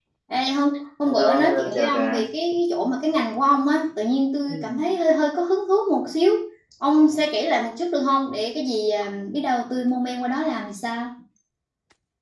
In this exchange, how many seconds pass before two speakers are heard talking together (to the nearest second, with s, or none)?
1 s